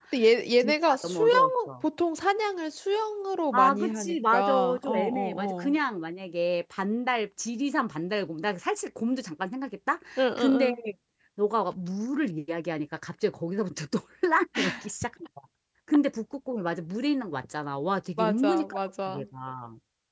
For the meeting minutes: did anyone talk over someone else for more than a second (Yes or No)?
Yes